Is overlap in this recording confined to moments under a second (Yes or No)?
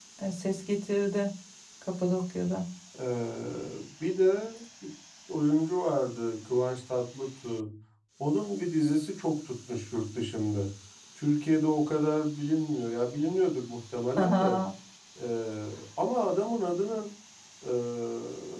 Yes